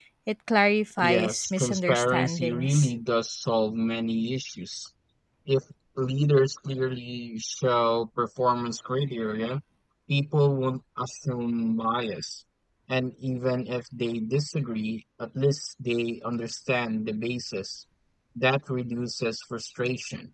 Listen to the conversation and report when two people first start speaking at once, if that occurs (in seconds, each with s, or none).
1.0 s